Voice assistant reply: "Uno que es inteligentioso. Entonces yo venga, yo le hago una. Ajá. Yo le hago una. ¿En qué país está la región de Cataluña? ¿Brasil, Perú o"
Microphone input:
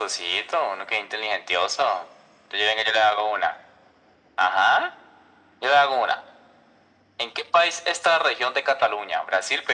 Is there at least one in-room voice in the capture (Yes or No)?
No